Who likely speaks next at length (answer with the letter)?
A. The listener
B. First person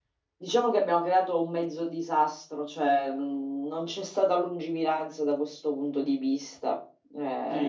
A